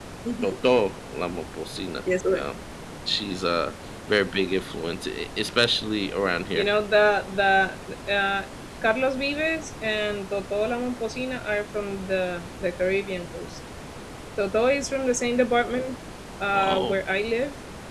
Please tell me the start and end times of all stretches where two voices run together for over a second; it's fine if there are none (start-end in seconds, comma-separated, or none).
none